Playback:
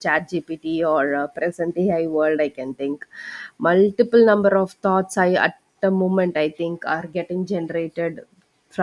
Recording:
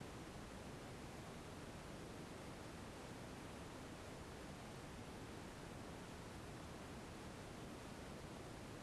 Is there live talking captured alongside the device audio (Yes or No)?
No